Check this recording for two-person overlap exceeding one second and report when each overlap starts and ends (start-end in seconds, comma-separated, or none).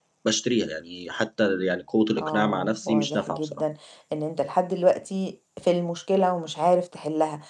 2.2-3.6